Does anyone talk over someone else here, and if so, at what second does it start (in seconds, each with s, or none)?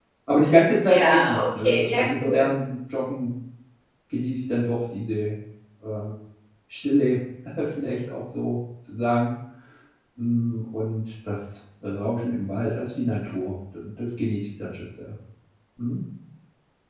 0.9 s